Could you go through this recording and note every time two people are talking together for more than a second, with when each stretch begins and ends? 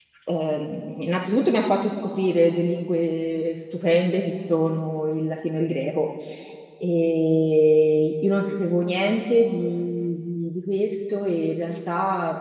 none

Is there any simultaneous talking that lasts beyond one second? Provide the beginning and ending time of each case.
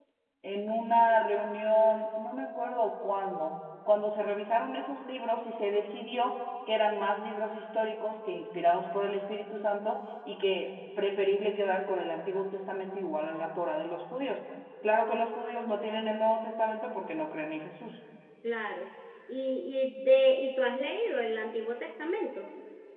none

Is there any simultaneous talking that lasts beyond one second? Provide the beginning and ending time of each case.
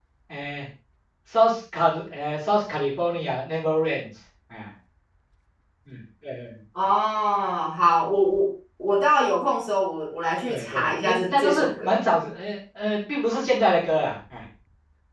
10.5-12.0

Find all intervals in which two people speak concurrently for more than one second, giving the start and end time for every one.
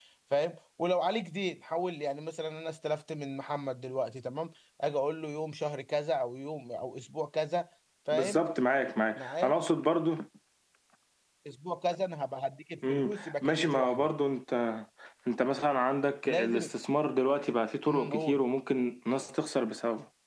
12.9-14.1

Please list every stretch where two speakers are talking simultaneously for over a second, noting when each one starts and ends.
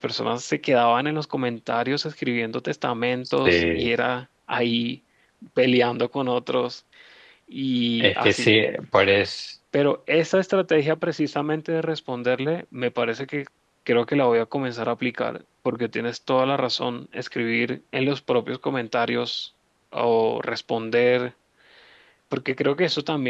none

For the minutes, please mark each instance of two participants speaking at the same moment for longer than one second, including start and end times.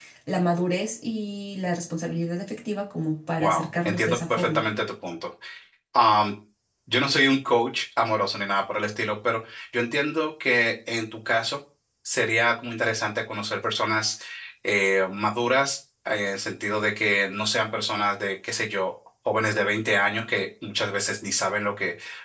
3.4-4.6

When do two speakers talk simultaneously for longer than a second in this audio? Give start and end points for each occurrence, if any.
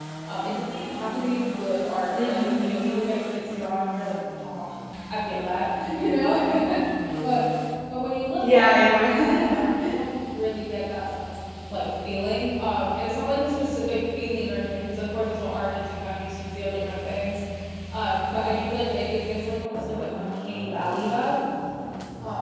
8.4-9.6

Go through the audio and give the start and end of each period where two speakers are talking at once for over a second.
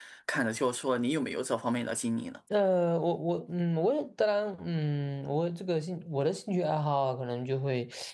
none

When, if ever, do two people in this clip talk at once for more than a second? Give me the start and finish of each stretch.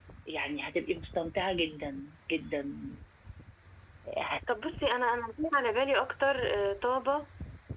none

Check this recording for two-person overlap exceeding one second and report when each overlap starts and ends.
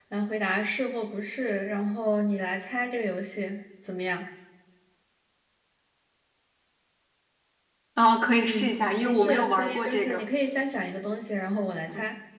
8.3-10.2

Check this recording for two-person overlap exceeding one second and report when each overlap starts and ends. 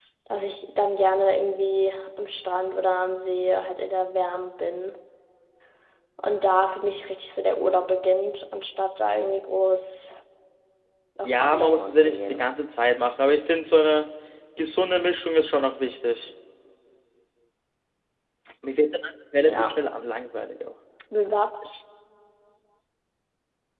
11.2-12.5

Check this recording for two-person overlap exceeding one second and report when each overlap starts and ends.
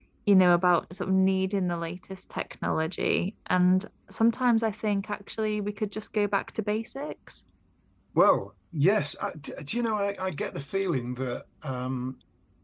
none

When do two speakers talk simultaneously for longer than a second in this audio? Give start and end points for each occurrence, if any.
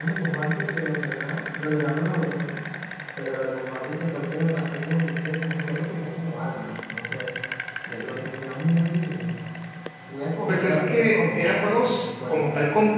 10.5-12.5

